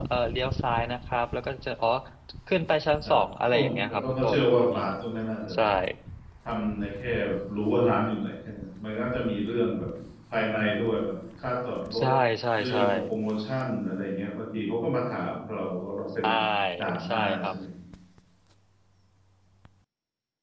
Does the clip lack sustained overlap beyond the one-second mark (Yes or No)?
No